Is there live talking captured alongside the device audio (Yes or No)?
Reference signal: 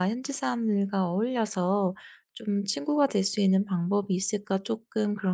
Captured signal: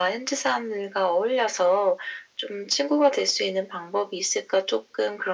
No